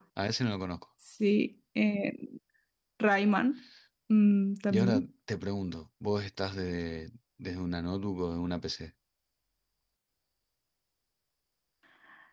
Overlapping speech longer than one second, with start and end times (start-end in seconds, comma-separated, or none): none